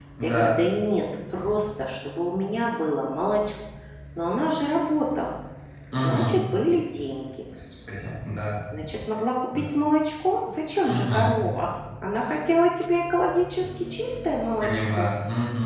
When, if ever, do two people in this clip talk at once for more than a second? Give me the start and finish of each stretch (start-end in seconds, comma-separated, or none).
none